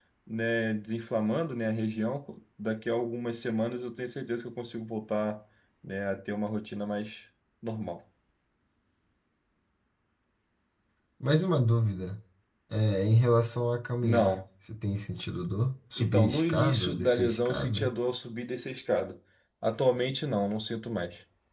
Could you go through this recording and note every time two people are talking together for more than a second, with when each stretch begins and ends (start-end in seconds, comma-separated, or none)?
16.0-17.9